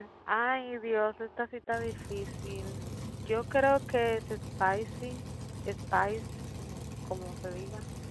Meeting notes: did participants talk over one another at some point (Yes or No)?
No